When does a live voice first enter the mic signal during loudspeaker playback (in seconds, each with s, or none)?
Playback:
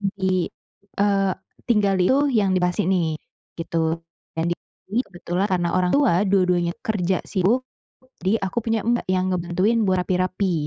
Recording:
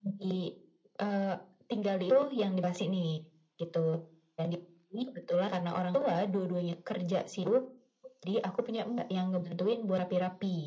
none